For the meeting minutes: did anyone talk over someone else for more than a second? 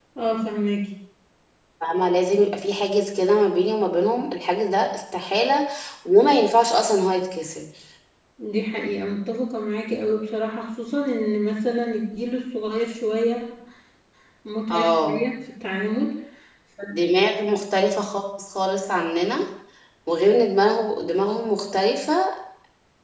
No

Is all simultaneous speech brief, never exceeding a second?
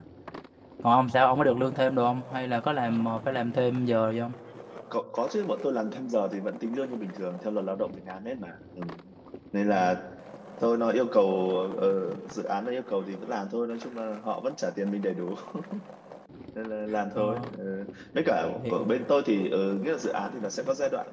Yes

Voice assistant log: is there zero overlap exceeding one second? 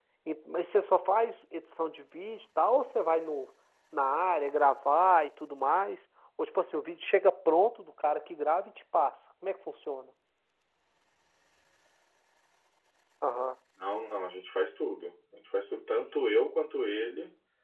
Yes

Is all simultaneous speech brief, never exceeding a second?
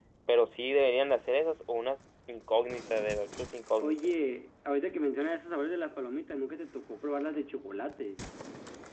Yes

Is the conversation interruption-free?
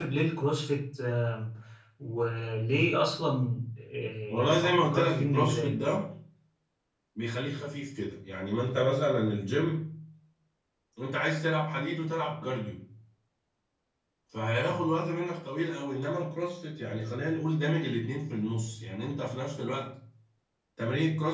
No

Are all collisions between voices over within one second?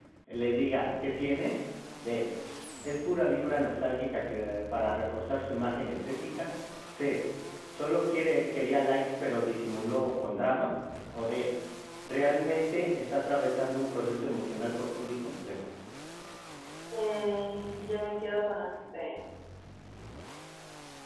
Yes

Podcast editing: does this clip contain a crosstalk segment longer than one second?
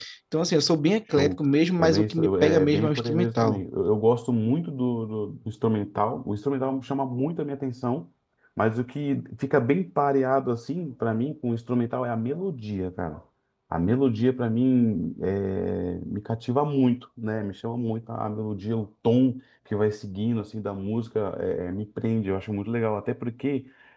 Yes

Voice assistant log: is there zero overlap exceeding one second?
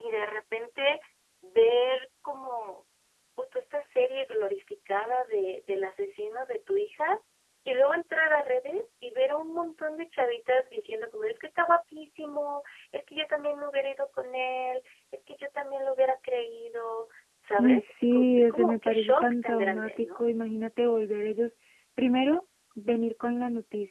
No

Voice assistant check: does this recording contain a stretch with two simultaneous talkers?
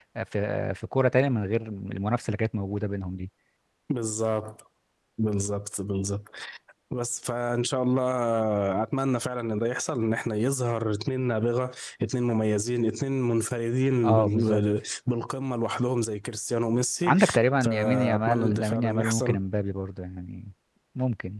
Yes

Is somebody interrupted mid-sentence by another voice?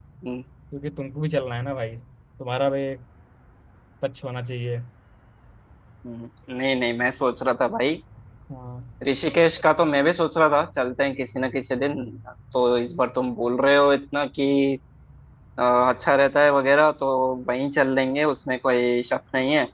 No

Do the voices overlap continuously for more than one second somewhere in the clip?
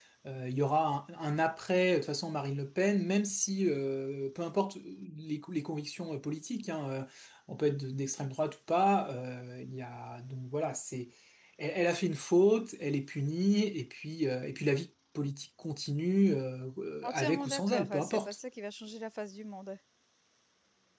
Yes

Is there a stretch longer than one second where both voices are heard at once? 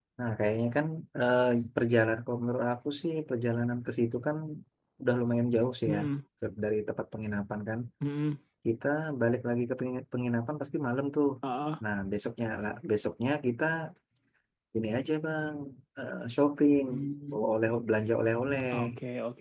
No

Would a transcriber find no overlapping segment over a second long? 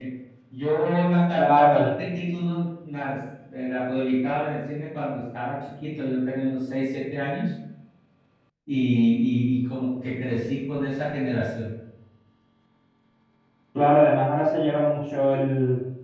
Yes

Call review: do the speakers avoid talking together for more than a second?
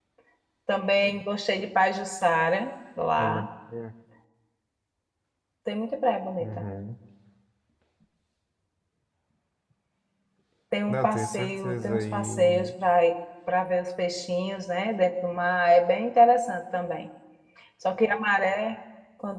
No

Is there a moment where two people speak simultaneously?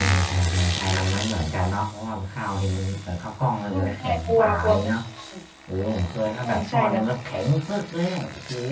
Yes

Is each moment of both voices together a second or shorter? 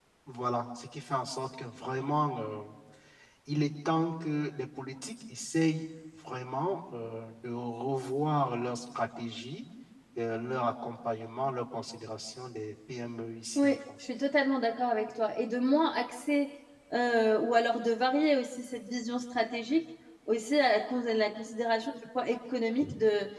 Yes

